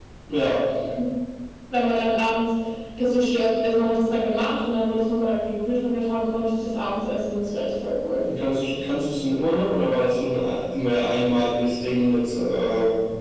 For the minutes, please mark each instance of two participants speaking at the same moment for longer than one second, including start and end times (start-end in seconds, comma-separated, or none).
none